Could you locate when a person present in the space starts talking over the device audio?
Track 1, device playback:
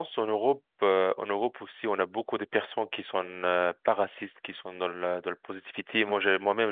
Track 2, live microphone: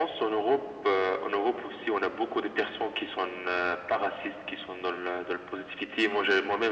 none

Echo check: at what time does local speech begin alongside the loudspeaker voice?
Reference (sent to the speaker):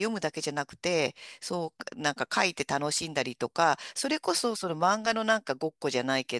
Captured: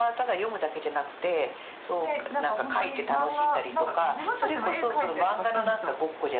1.9 s

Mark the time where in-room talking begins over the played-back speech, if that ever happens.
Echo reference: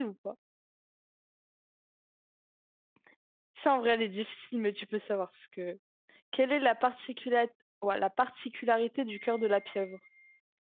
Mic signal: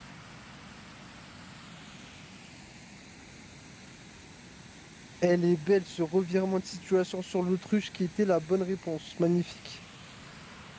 5.2 s

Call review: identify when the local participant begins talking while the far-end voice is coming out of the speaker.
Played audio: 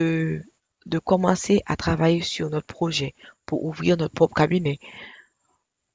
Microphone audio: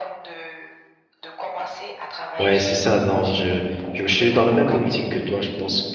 2.4 s

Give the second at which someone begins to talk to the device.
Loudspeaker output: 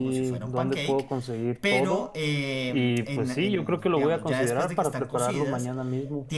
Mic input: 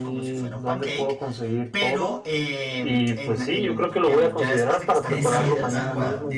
5.1 s

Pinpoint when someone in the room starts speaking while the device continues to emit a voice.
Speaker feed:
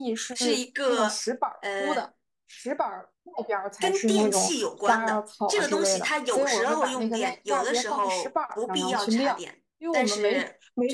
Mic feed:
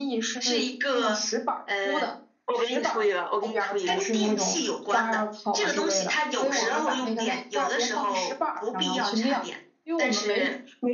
2.4 s

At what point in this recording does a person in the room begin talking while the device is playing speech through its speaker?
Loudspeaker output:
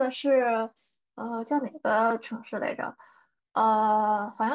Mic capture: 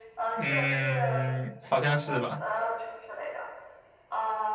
0.3 s

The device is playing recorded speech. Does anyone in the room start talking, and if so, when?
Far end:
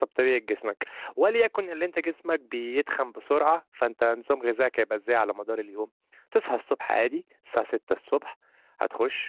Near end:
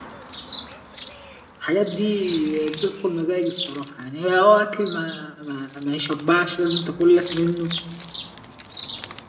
1.6 s

